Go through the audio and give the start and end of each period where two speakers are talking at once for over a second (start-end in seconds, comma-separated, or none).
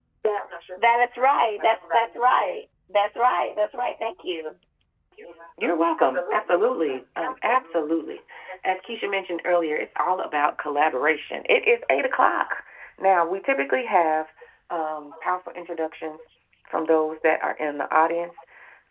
5.6-7.8